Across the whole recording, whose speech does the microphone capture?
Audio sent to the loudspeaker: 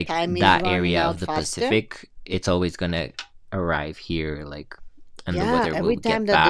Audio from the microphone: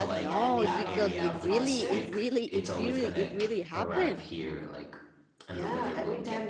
both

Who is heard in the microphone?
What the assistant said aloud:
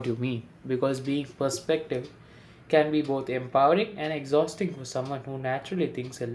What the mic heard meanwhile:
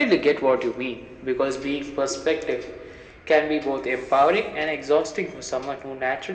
echo only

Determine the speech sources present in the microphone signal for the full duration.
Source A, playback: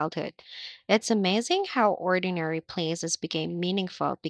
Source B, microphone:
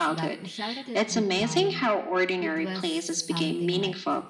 both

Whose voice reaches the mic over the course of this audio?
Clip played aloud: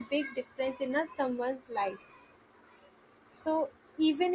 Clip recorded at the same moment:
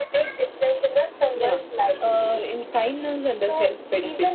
both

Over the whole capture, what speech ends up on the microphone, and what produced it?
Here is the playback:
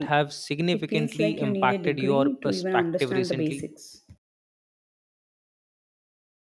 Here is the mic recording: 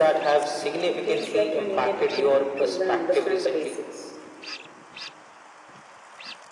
echo only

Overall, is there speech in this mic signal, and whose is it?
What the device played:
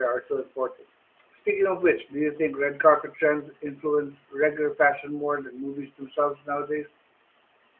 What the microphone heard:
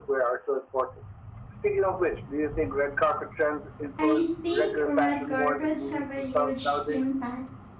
both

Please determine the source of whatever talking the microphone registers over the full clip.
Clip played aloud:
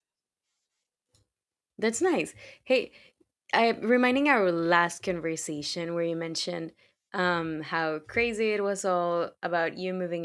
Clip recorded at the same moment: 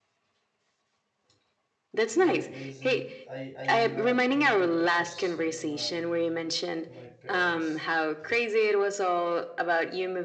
both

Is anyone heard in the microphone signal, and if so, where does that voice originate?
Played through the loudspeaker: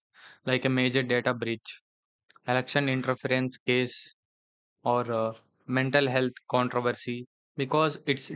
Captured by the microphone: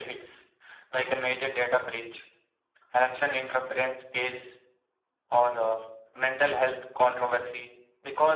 echo only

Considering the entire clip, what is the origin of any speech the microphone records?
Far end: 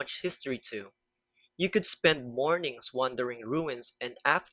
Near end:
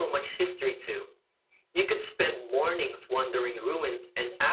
echo only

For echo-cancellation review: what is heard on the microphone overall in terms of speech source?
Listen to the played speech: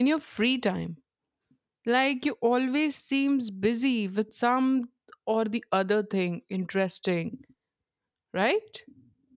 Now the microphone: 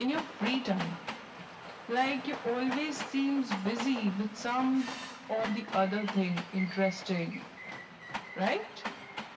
echo only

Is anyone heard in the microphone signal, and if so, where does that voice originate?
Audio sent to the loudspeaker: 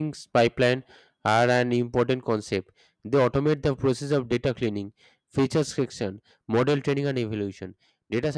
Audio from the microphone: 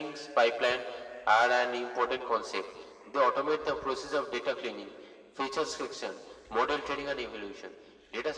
echo only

